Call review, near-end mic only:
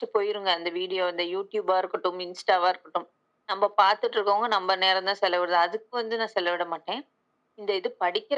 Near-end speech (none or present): none